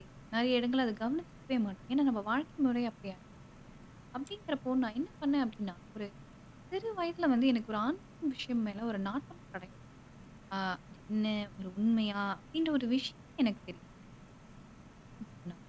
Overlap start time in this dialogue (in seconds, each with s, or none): none